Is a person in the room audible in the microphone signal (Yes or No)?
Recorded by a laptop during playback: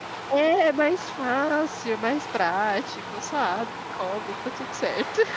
Yes